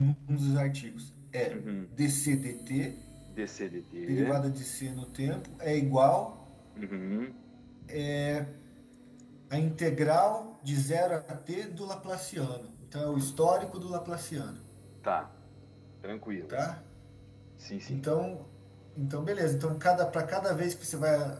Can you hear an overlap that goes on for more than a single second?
No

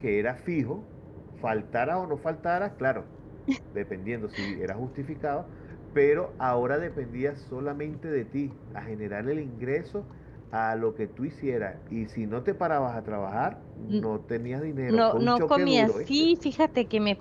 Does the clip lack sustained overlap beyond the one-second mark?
No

